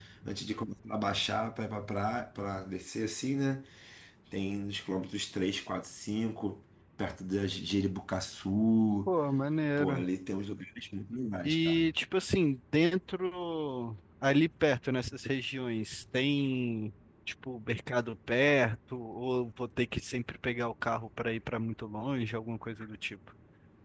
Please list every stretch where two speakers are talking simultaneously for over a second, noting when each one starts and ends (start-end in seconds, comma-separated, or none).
none